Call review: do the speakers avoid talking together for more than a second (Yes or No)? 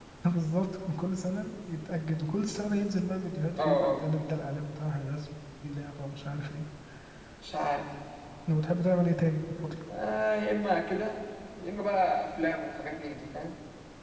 Yes